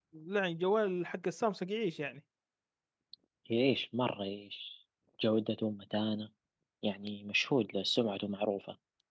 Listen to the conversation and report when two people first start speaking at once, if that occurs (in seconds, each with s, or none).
none